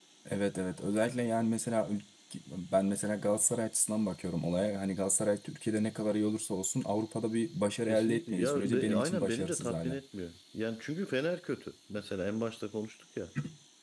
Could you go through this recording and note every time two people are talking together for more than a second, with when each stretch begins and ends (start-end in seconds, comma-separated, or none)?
7.8-10.0